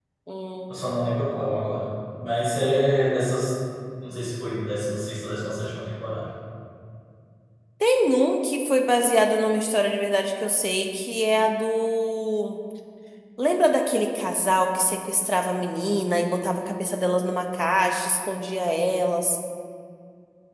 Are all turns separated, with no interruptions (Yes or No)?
Yes